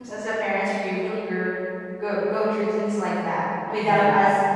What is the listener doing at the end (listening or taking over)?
listening